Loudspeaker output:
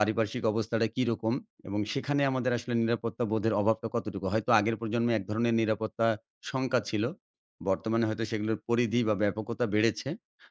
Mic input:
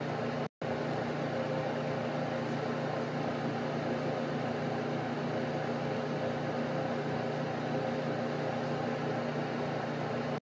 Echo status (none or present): none